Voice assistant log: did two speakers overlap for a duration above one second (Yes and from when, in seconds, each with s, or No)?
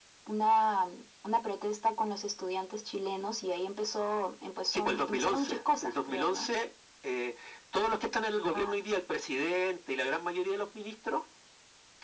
Yes, from 4.7 s